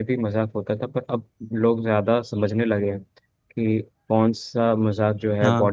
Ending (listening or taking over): listening